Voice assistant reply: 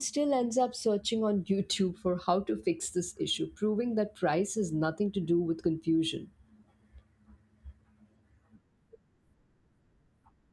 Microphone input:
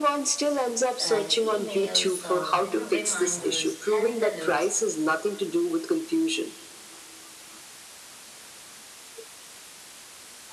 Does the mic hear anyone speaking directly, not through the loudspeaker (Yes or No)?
Yes